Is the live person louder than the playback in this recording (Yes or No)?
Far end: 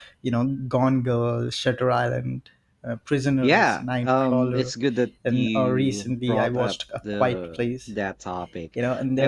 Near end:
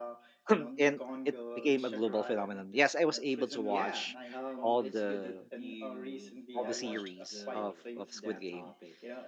Yes